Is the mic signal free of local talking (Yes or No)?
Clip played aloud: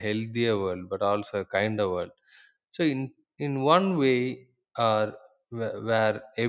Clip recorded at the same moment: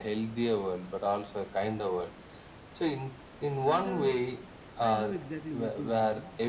No